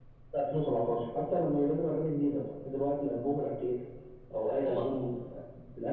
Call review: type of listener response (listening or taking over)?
listening